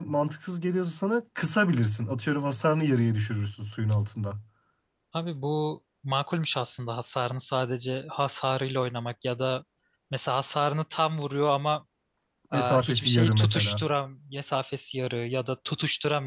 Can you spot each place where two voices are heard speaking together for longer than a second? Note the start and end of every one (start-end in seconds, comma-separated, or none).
12.5-13.8